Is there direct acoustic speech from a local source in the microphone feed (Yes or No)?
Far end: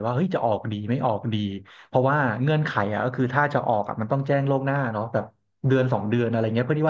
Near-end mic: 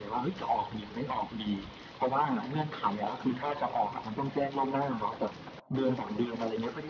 No